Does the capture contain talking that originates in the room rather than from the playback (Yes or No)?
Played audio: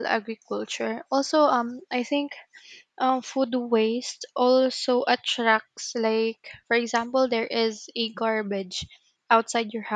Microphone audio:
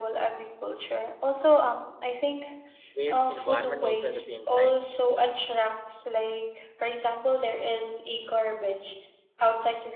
Yes